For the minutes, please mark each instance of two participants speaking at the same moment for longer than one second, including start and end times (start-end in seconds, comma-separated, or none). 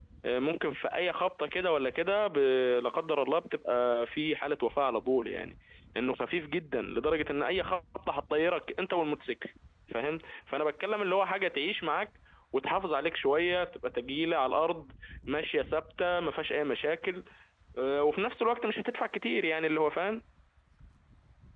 none